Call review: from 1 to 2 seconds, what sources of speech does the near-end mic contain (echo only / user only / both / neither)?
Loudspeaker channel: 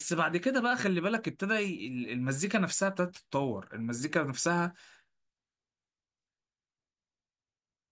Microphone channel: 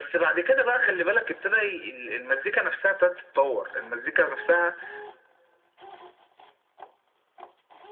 echo only